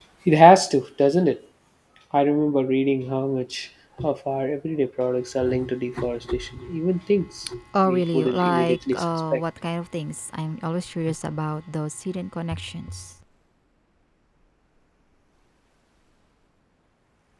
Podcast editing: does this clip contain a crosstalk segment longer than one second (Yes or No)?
Yes